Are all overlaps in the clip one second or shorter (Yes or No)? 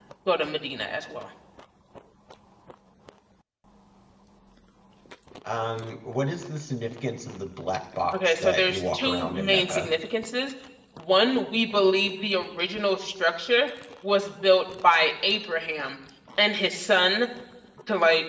No